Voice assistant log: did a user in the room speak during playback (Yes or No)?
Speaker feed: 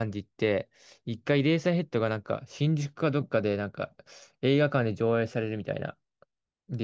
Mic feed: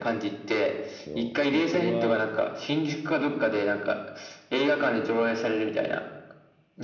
Yes